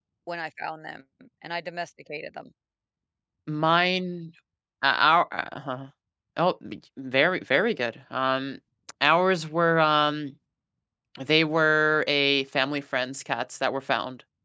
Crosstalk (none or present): none